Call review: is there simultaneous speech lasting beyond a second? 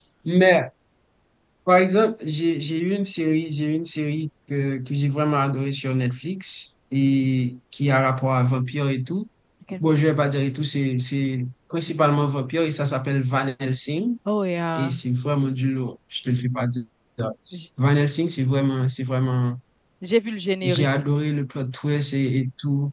No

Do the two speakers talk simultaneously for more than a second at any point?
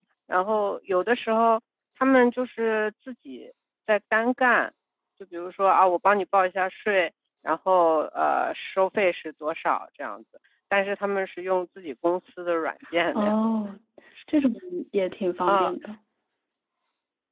No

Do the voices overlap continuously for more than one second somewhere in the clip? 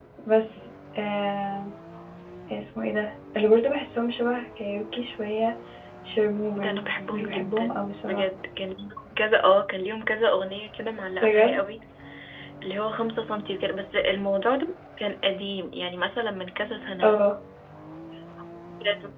Yes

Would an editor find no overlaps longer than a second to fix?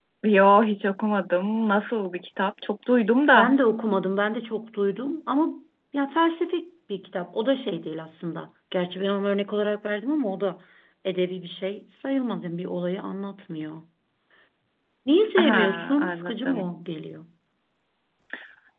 No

